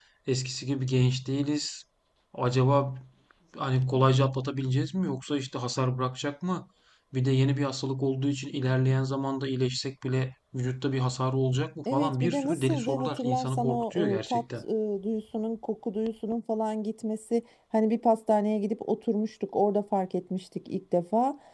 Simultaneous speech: Yes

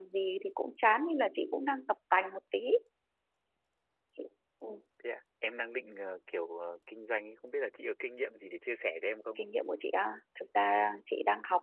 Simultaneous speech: No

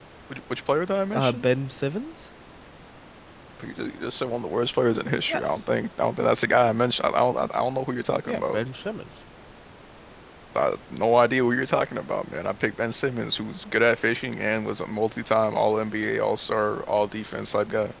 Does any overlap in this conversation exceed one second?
No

